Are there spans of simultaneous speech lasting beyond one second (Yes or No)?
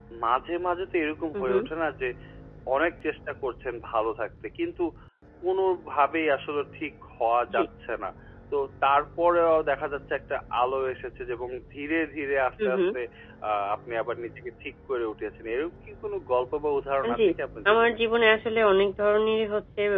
No